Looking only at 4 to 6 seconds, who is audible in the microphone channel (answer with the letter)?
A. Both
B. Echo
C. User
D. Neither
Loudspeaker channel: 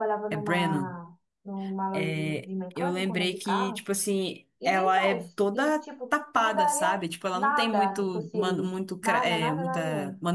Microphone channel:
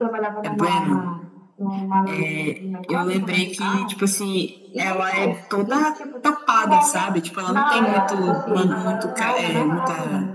B